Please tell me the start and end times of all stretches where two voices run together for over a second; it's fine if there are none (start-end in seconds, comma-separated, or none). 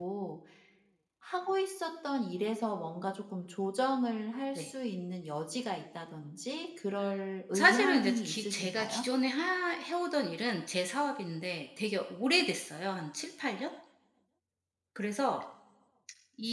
7.5-9.0